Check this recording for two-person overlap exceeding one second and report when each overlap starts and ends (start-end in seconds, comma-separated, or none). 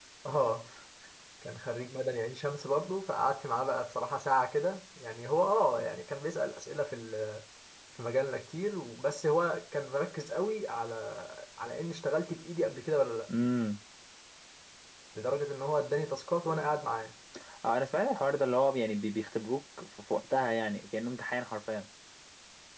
none